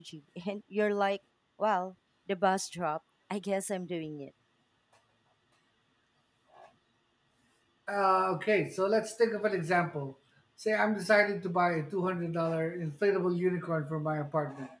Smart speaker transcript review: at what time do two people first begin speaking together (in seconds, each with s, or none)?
none